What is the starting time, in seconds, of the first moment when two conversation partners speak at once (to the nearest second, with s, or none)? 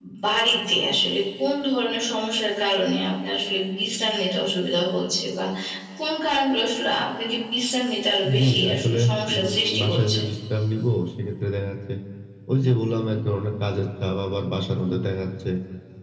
8 s